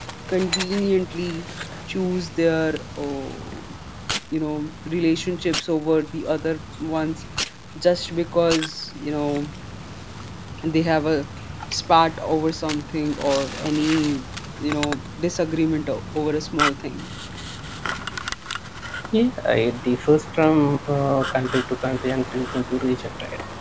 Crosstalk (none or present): none